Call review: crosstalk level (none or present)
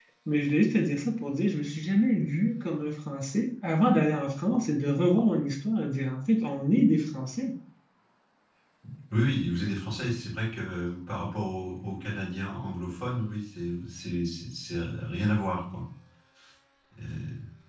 none